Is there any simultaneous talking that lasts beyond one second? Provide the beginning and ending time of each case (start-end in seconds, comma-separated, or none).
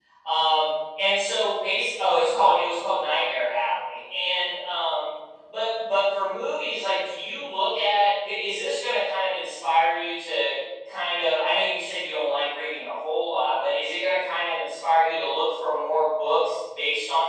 none